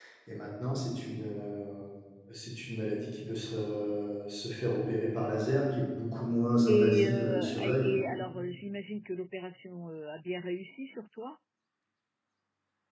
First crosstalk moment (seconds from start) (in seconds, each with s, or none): 6.7 s